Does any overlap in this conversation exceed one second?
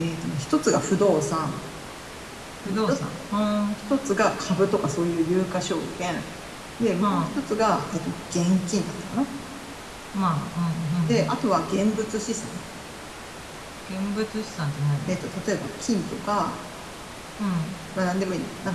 No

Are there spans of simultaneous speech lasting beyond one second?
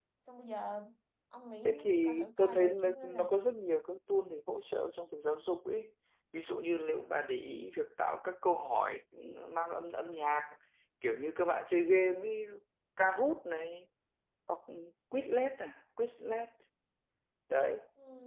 Yes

